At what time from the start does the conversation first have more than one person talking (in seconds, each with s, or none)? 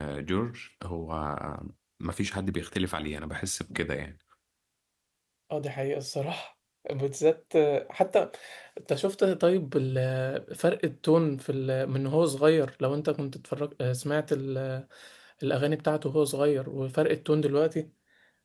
none